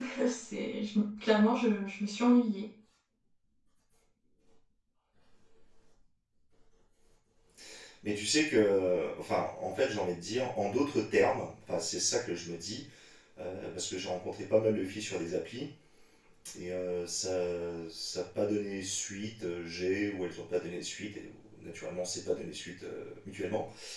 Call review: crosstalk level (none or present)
none